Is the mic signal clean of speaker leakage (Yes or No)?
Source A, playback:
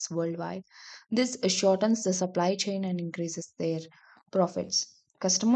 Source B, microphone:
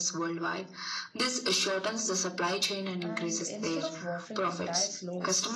No